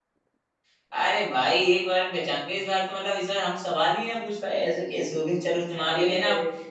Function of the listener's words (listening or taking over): listening